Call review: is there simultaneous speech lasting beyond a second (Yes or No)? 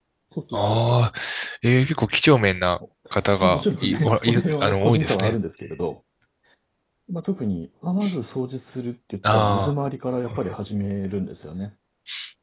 Yes